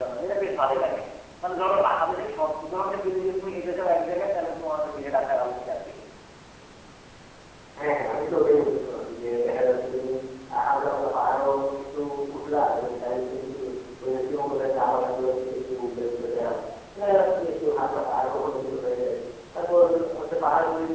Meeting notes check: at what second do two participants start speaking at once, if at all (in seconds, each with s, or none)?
none